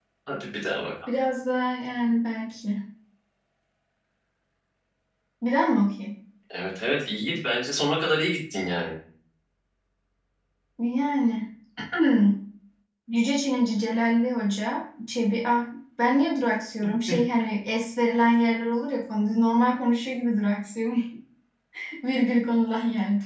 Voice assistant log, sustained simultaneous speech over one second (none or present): none